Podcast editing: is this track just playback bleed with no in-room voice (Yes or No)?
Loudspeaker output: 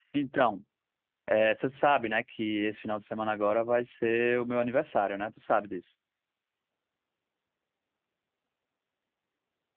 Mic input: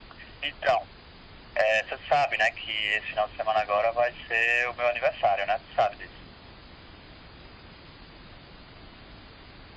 Yes